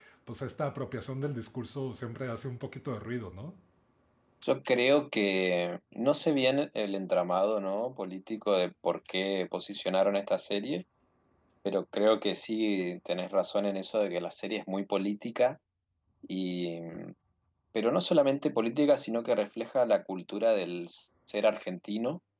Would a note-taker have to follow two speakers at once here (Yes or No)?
No